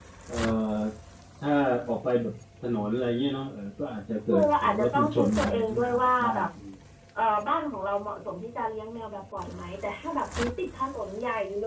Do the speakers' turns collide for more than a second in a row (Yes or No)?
Yes